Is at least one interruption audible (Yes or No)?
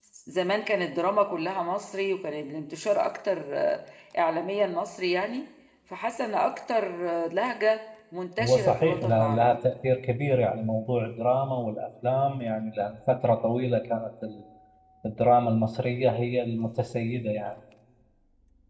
Yes